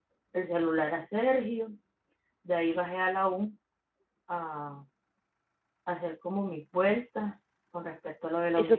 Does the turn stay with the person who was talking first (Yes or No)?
No